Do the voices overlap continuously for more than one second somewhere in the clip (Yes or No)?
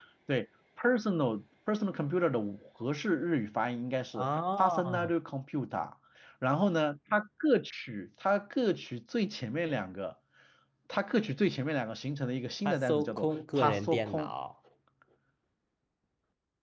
Yes